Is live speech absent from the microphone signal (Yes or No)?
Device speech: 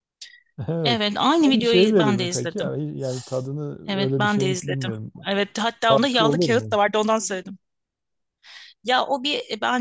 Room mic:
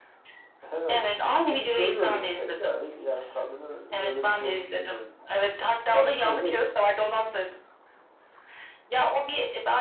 Yes